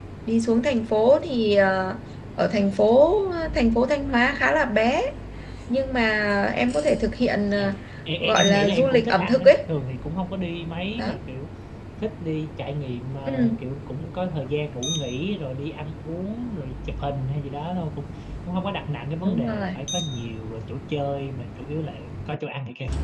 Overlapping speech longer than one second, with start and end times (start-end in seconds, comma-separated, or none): 8.2-9.5